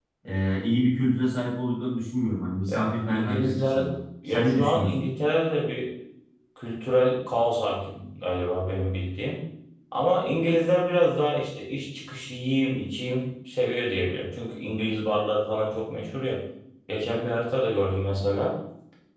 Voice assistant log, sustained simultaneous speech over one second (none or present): present